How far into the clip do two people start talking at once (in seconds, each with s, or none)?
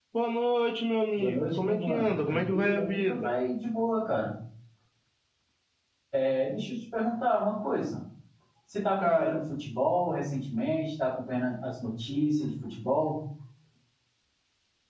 1.2 s